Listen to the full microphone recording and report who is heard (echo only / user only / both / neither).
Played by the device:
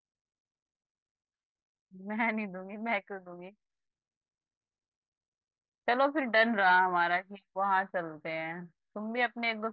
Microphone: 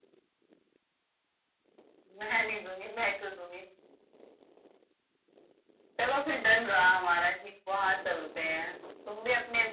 echo only